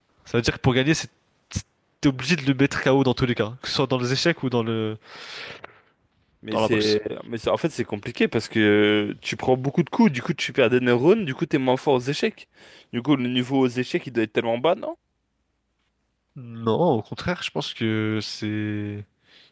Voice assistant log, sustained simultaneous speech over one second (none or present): none